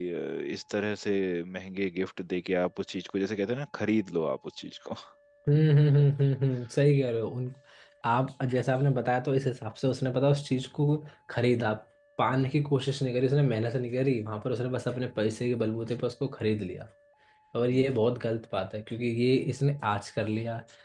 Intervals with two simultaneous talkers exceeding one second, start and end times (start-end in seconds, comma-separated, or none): none